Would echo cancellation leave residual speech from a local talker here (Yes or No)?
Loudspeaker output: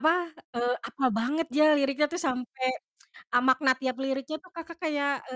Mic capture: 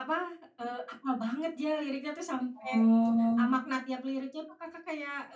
Yes